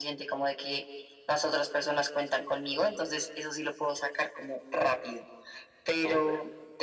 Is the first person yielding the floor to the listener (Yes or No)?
No